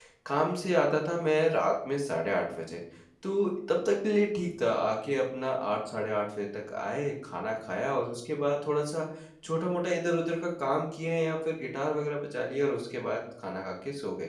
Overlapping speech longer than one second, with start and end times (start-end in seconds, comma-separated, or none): none